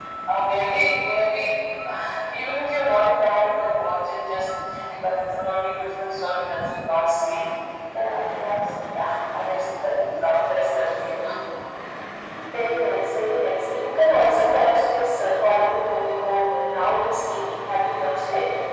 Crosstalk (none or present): none